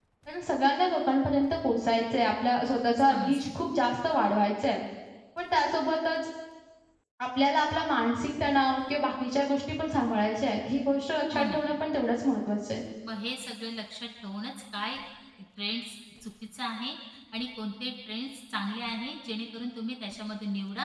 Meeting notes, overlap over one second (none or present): none